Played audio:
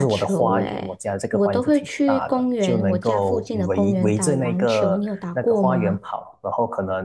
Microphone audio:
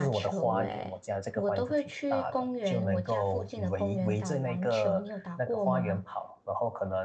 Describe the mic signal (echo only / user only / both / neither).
echo only